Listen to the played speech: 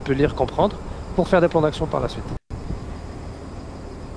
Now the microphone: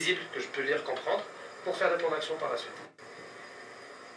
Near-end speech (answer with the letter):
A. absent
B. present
A